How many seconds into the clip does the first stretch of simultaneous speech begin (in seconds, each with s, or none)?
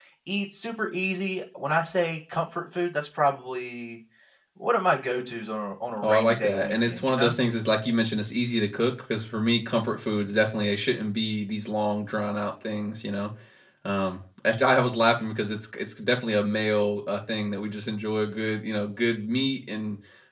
6.0 s